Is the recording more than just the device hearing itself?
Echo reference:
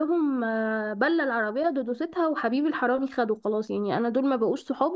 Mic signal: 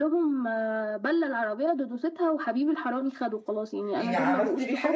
Yes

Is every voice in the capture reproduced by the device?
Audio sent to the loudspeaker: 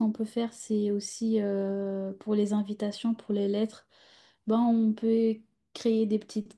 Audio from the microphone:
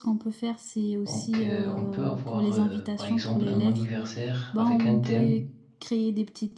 No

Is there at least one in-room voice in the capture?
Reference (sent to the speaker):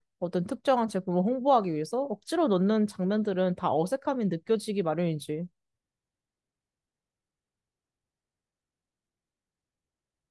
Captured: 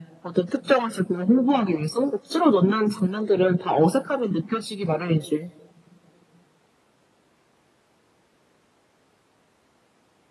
No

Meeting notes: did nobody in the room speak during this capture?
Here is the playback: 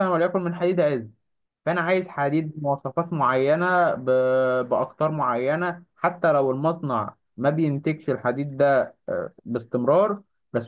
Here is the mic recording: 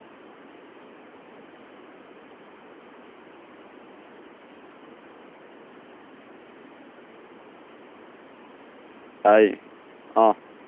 No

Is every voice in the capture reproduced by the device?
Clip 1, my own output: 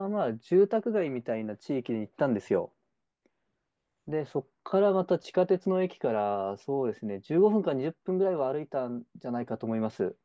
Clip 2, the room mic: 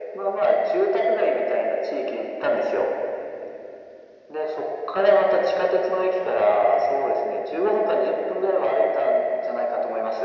Yes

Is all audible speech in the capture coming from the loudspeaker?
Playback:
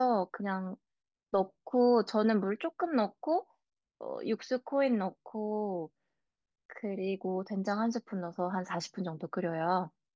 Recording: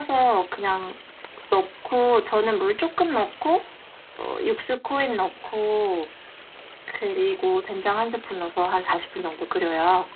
Yes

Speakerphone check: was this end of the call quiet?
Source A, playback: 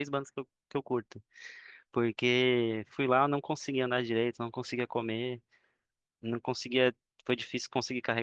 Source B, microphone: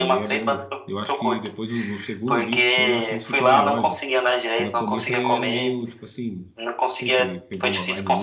No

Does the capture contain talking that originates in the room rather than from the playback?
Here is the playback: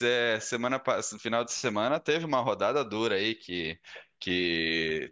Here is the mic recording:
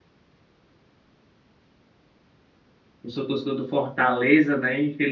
Yes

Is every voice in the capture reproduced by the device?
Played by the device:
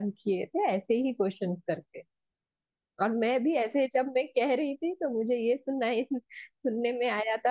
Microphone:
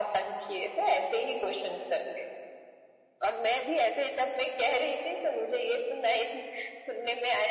Yes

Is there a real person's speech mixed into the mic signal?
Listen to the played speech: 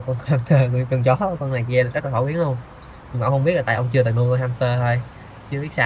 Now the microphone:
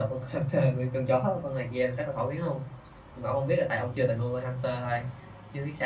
No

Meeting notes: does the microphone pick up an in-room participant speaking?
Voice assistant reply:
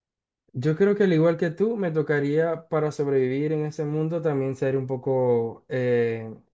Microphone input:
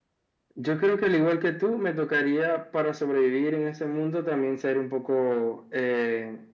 No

